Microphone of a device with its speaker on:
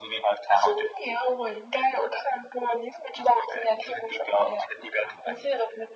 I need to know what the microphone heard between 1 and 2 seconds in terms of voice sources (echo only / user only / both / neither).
echo only